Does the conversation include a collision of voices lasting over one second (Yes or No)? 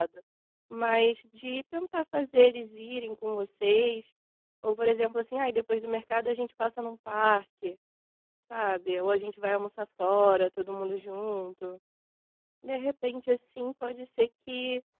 No